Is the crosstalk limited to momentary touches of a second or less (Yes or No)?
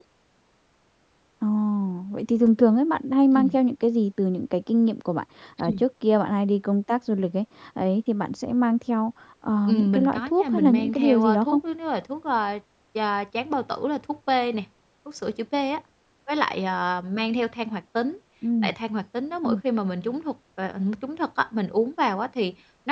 No